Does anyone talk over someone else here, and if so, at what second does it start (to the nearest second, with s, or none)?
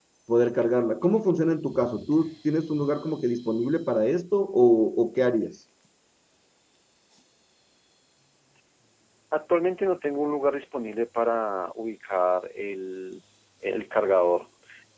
none